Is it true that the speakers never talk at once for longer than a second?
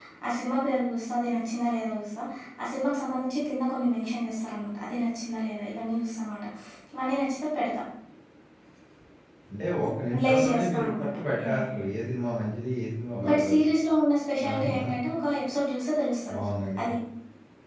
No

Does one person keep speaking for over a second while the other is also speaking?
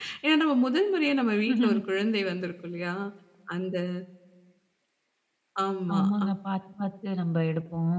No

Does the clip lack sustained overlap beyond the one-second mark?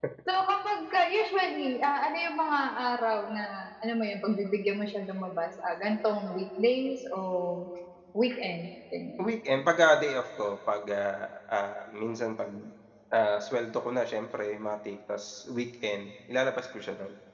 Yes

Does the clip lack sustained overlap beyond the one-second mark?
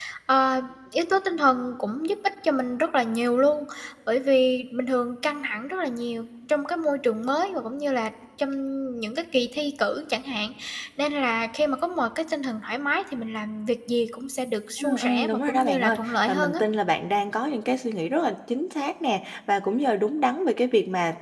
No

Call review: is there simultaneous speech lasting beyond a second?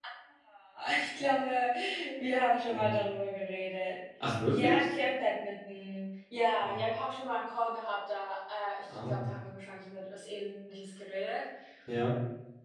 No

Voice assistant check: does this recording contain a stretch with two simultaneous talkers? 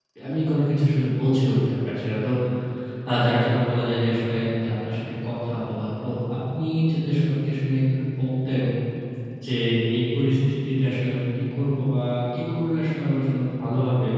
No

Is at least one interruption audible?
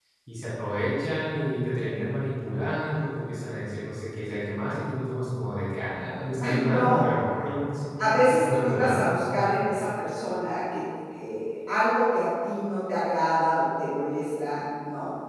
Yes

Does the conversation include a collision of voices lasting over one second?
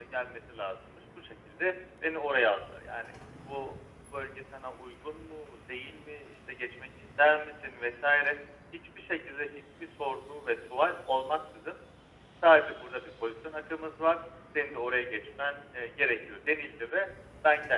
No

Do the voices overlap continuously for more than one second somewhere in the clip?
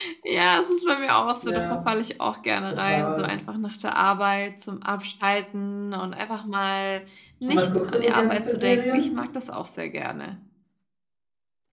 Yes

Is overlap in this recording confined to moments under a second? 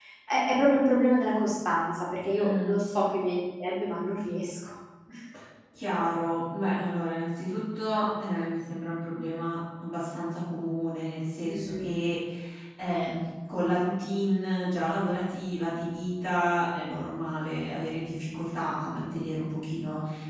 Yes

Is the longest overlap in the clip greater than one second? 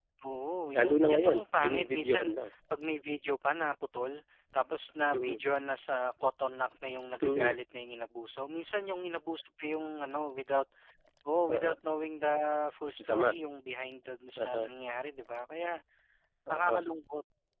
Yes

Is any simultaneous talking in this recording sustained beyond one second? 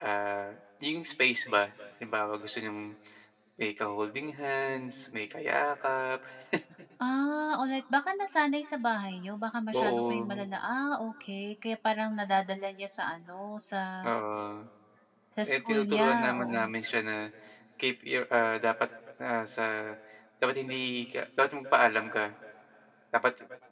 Yes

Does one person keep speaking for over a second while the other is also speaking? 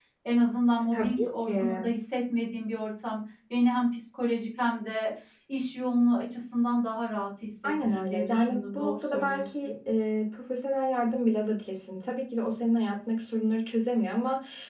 Yes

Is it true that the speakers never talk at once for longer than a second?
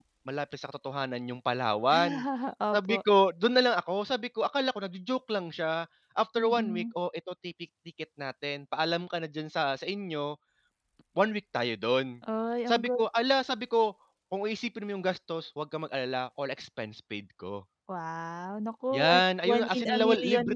No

